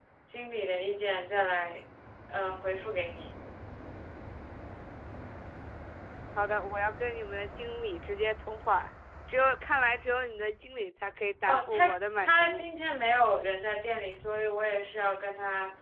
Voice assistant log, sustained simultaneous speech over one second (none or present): present